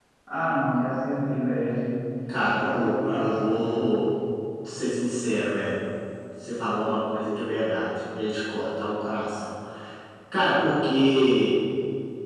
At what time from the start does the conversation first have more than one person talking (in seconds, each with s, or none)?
2.4 s